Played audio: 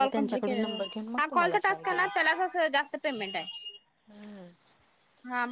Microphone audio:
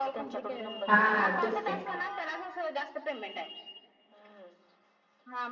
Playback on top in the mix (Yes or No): No